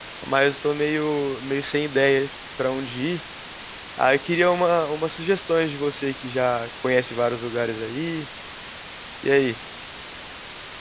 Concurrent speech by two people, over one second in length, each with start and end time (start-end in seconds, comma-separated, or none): none